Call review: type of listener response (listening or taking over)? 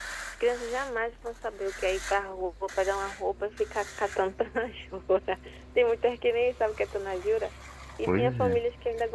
listening